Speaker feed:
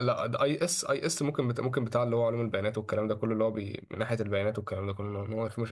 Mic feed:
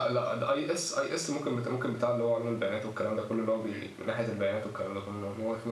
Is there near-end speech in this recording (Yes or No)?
Yes